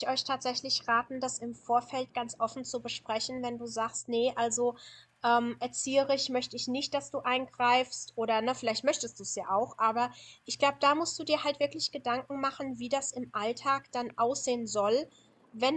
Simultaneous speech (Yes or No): No